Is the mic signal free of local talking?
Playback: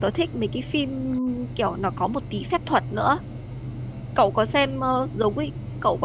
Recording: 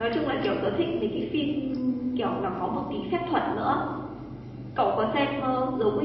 Yes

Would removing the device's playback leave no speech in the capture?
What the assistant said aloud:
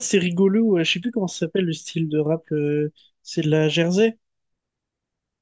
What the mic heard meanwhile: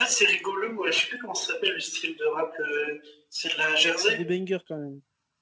No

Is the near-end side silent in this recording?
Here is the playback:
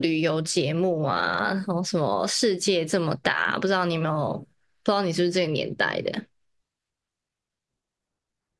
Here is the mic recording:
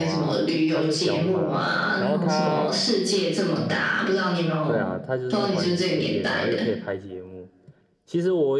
No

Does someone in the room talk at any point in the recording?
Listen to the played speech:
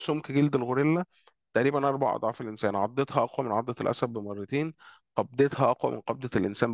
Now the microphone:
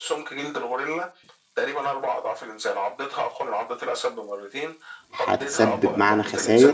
Yes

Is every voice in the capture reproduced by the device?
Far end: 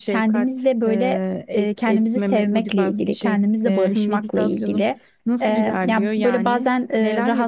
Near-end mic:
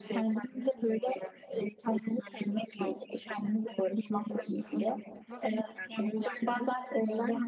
Yes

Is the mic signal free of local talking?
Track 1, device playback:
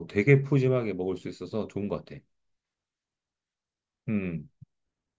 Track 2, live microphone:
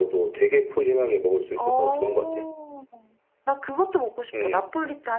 No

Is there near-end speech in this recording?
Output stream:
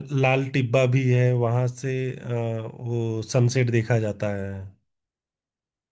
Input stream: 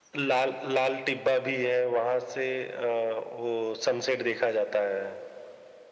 No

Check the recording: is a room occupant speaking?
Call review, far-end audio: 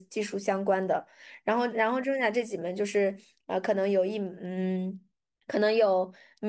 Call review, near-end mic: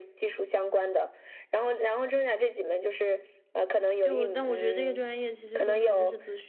Yes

